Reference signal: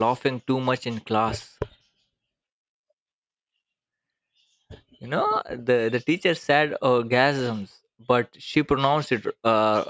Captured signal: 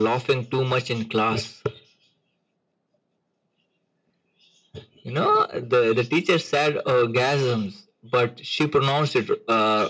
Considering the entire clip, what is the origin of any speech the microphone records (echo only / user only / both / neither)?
echo only